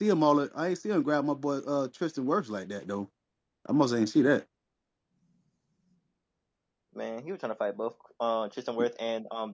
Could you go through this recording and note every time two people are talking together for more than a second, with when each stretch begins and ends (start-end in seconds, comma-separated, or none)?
none